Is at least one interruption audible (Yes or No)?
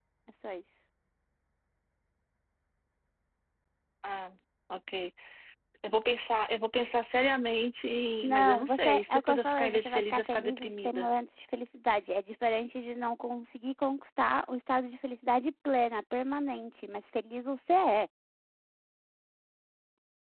Yes